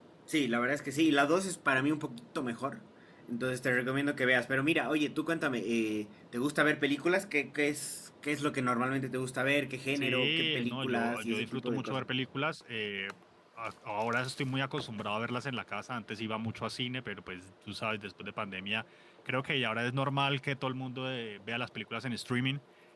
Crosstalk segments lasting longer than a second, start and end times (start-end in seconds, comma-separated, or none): 9.9-12.0